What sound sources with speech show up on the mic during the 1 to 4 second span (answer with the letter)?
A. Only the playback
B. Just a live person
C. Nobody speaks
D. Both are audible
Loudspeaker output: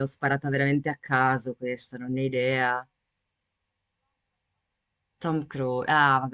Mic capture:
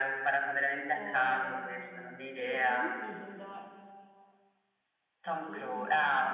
D